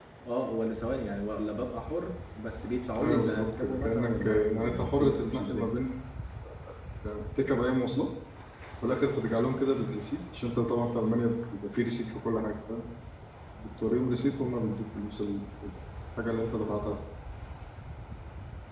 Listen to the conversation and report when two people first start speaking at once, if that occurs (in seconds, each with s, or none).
3.0 s